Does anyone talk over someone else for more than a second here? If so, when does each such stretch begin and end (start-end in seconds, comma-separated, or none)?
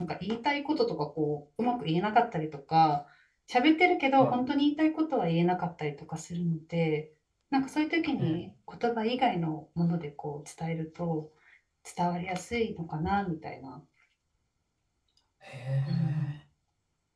none